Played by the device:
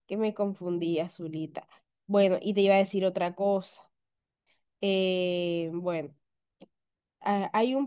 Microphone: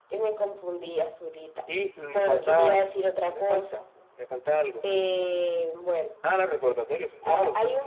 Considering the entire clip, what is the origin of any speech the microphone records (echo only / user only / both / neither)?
both